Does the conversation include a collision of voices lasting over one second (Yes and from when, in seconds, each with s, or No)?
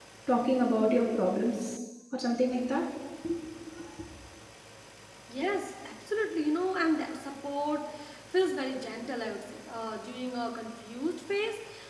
No